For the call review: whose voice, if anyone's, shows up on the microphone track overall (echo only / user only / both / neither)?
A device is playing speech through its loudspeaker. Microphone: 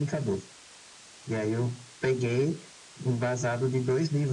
echo only